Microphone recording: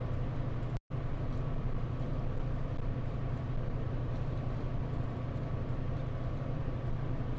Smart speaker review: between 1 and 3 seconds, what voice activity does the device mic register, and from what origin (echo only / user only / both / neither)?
neither